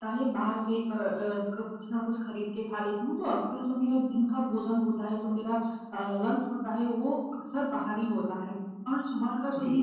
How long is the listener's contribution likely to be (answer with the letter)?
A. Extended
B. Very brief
B